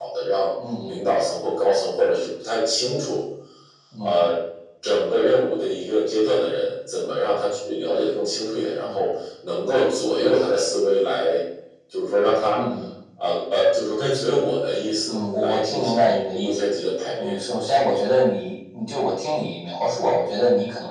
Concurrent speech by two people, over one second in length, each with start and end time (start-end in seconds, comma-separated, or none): 15.1-16.7